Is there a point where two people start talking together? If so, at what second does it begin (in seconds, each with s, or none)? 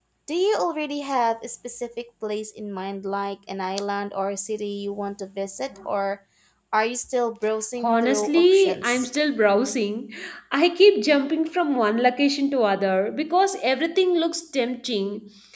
7.8 s